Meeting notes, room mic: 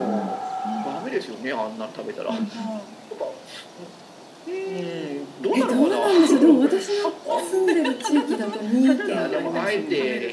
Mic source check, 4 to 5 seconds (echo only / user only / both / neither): echo only